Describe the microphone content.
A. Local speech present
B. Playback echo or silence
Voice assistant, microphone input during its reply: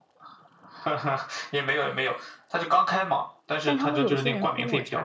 A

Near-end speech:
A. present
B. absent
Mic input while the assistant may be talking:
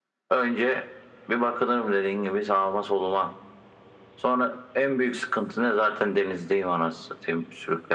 B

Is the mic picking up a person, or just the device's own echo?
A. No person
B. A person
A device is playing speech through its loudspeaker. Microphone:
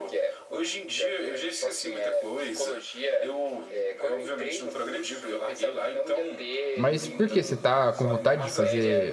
B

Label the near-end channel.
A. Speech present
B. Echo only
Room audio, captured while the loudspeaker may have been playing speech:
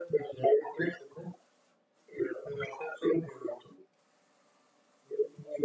B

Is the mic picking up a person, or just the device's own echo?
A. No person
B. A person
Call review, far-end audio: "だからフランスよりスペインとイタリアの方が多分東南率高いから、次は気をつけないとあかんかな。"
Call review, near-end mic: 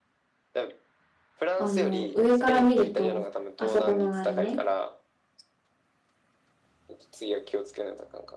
B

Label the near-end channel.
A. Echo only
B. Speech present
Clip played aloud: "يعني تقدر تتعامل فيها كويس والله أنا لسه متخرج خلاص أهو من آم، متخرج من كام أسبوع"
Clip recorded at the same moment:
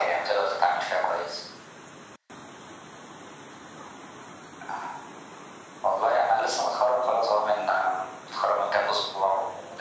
A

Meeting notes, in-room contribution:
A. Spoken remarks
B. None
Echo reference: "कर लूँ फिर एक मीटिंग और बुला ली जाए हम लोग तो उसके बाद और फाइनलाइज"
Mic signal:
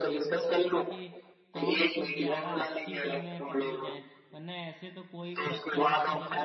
A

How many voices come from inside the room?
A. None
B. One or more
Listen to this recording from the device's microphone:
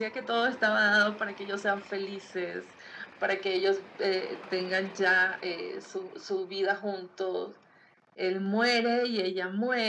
A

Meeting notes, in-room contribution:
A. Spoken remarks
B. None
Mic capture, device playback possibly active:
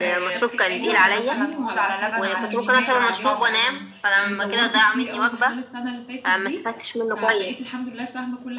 A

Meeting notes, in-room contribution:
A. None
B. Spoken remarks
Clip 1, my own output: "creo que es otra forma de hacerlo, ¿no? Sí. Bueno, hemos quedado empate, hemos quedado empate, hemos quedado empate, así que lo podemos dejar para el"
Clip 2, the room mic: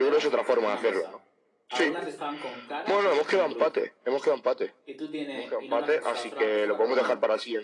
B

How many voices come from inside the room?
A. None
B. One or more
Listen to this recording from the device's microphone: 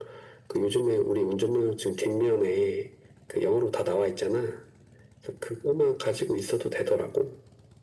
A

